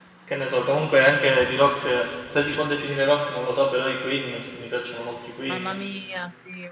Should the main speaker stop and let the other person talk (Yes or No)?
Yes